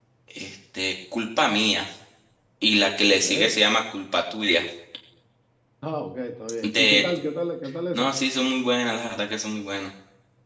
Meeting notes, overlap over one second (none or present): none